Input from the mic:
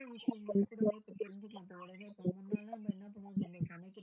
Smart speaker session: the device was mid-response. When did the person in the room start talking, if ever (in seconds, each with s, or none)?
none